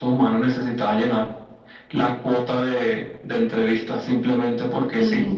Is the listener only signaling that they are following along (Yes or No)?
No